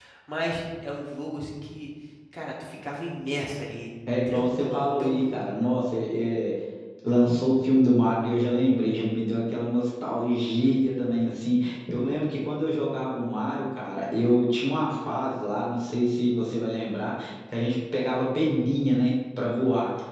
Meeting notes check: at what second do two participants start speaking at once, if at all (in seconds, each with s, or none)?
4.1 s